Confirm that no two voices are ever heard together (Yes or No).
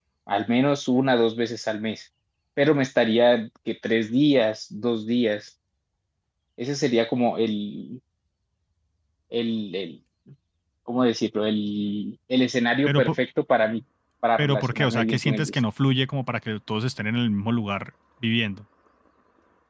No